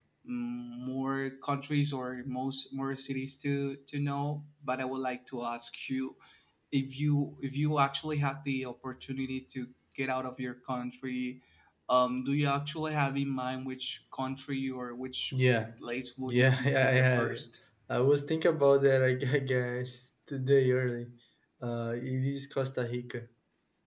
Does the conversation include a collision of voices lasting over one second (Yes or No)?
Yes